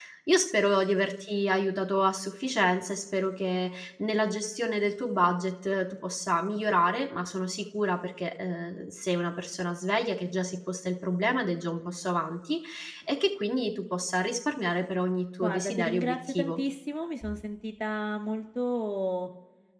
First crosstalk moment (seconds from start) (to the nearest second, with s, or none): 15 s